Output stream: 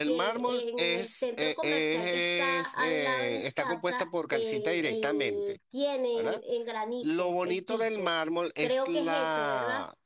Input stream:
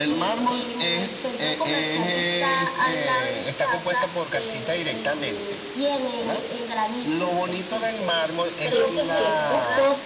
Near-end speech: present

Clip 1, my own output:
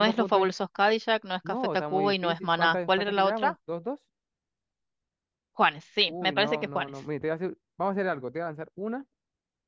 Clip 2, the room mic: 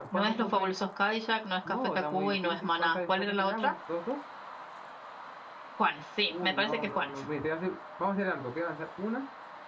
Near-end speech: none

